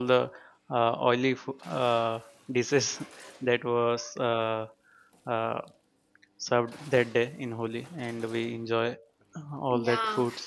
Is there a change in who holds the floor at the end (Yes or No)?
Yes